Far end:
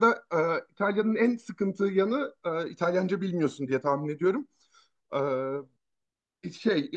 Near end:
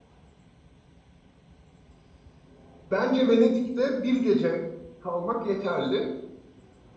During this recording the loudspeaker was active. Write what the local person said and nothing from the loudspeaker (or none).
Bence Venedik'te bir gece kalmak yeterli.